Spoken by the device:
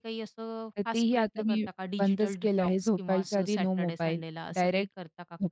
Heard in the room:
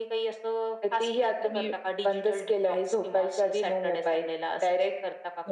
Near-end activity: none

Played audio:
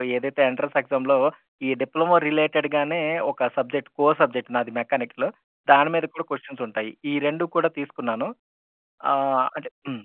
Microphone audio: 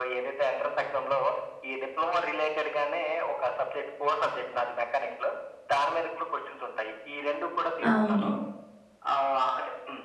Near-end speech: present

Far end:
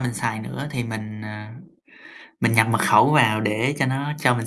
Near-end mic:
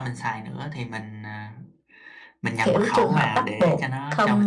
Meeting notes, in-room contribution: present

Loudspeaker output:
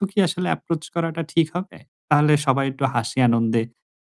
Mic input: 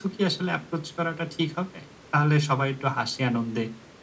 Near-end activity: none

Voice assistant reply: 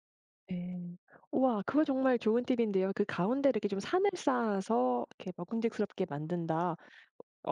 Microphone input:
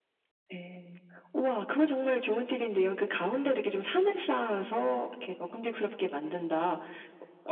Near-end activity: none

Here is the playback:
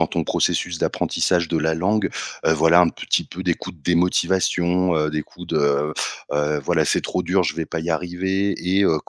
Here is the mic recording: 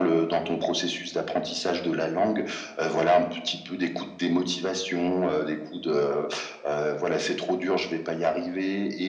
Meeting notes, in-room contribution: none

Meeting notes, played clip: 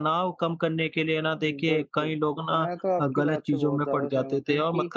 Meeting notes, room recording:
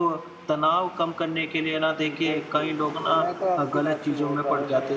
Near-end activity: none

